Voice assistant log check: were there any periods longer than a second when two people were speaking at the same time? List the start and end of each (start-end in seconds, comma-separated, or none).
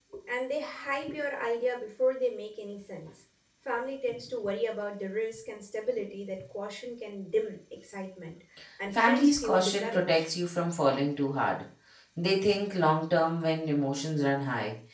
8.9-10.2